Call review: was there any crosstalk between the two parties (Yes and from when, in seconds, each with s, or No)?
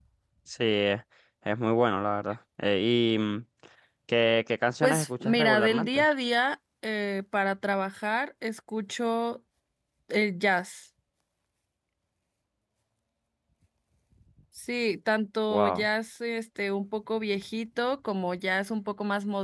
Yes, from 4.8 s